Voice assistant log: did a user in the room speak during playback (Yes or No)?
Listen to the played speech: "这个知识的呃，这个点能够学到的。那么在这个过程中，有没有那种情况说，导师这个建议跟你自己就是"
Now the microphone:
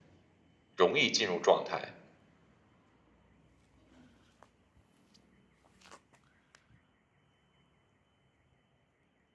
Yes